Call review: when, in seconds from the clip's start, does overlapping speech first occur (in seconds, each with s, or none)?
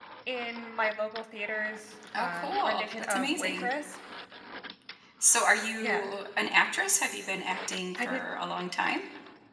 2.2 s